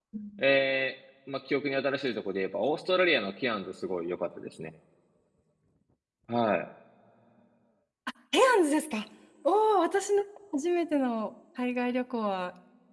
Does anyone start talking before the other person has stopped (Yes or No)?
No